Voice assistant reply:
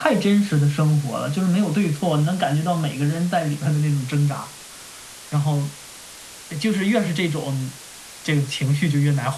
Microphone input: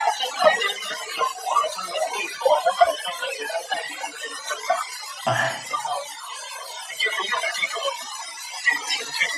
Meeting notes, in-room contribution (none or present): present